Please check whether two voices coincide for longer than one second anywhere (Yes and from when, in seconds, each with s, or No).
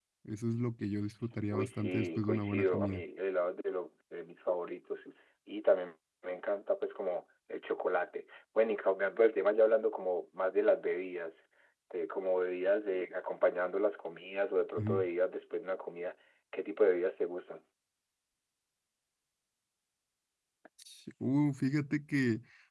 Yes, from 1.5 s